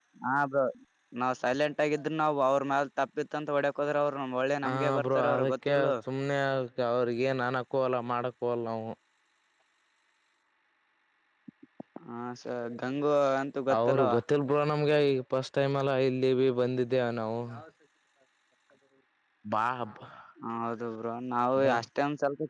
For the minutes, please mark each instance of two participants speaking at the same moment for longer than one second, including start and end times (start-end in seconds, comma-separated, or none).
4.7-5.9